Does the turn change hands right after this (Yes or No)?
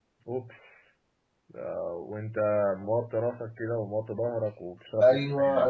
Yes